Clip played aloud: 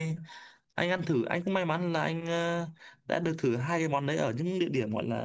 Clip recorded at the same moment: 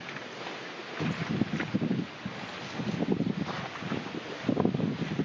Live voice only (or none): none